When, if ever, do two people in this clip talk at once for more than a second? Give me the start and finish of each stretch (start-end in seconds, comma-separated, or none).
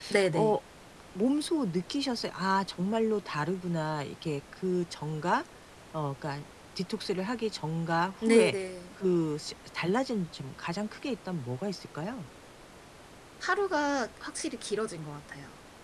none